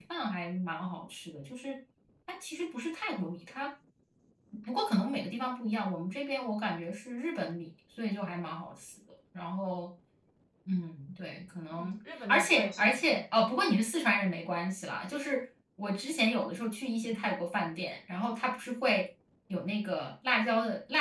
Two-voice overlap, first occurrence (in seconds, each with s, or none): 11.7 s